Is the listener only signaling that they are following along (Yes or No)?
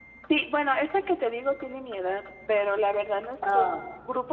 Yes